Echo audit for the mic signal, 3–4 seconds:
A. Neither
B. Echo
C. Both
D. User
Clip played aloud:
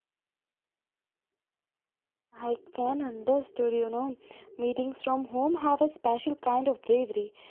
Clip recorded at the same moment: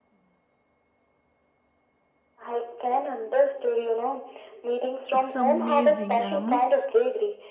B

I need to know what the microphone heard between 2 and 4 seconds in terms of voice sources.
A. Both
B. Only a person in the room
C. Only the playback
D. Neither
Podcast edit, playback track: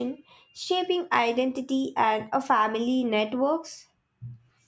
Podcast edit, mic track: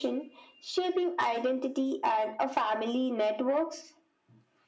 C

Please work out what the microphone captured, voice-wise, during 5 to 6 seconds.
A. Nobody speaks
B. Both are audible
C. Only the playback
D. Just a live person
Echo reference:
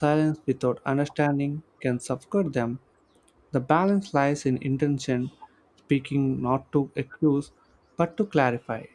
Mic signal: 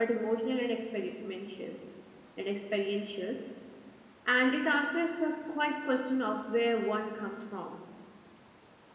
D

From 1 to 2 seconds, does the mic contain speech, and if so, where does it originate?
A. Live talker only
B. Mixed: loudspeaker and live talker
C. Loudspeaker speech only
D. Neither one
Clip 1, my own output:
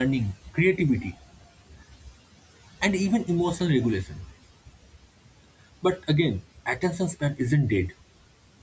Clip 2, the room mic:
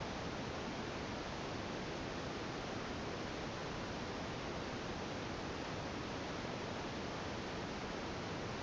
D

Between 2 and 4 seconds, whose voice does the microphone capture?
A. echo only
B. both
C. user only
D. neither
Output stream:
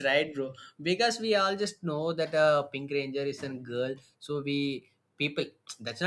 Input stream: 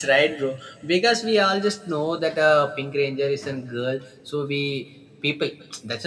A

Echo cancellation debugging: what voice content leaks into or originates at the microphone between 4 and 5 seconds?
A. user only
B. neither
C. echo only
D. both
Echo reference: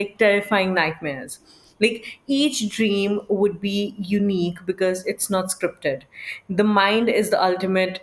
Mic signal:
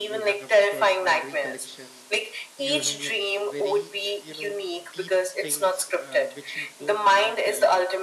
D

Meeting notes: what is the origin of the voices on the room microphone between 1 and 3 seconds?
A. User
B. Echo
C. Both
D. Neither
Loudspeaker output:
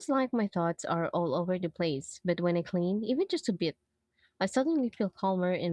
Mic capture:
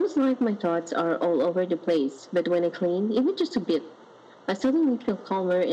B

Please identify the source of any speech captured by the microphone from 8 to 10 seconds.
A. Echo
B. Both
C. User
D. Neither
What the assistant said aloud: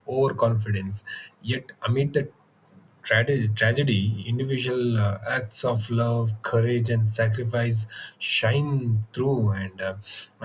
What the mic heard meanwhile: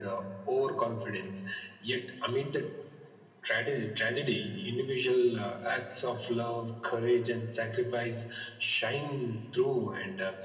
A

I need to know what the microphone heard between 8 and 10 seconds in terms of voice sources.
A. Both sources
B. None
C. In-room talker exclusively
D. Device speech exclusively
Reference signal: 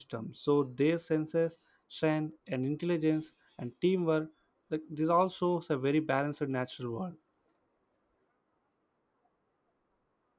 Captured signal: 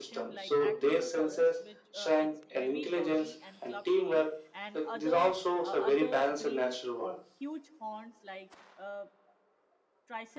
C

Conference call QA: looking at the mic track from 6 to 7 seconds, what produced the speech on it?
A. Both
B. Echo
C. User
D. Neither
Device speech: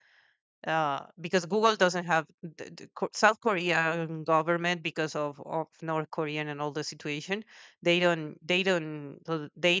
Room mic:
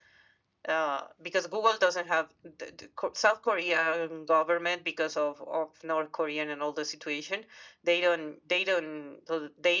B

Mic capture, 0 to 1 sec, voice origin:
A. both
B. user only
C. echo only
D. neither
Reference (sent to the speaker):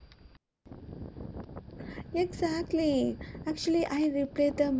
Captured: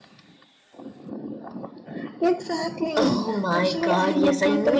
D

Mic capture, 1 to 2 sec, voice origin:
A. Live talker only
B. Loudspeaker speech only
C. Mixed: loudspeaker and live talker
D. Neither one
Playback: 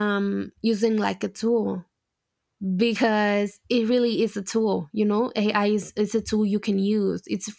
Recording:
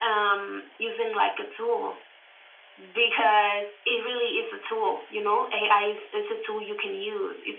B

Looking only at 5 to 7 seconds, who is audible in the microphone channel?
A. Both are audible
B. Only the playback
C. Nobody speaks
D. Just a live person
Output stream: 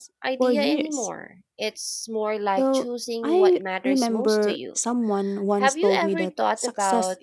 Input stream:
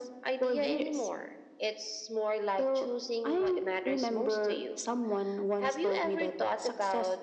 B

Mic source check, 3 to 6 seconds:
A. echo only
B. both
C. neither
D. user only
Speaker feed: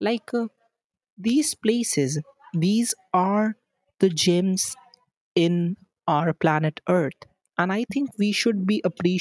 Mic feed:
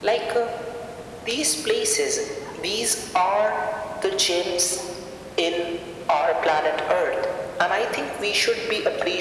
A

